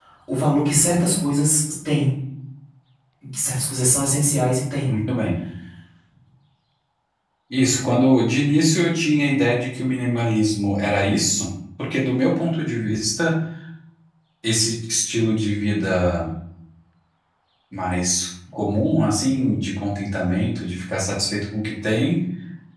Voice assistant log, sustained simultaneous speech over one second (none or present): none